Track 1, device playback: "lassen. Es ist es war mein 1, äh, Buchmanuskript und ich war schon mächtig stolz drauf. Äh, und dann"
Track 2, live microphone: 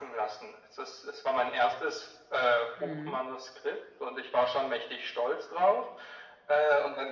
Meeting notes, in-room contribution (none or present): present